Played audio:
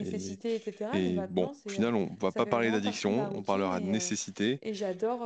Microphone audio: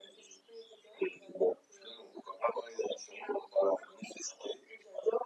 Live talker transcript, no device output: none

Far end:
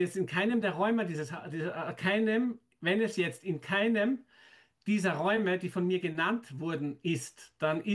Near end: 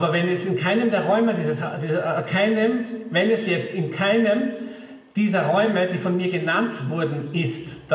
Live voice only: none

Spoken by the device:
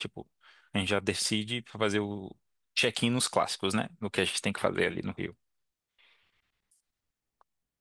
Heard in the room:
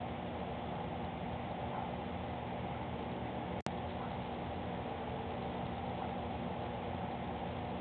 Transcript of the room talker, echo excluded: none

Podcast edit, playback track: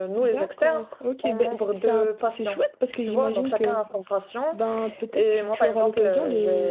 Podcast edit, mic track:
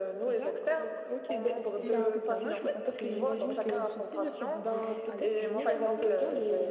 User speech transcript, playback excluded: Et est-ce que ça va? C'est pas trop, c'est pas trop difficile le fait de devoir alterner comme ça?

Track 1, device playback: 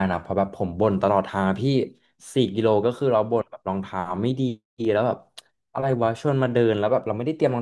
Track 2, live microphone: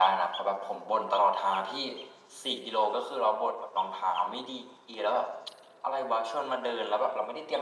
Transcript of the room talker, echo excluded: none

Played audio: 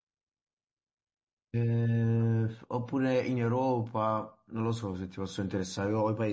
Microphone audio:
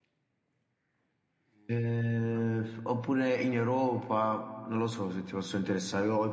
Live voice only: none

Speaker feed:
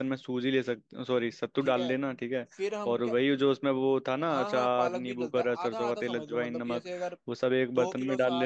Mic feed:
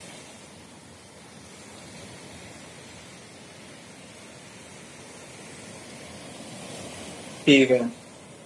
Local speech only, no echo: ठीक है

